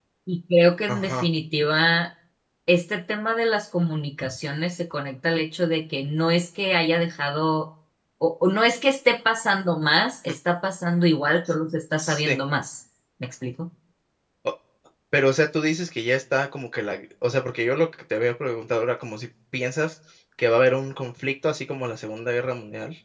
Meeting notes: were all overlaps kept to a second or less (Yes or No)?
Yes